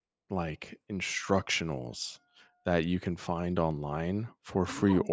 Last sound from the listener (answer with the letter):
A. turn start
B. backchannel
B